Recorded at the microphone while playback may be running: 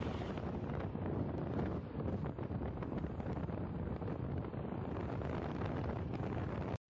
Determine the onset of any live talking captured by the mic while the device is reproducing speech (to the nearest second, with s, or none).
none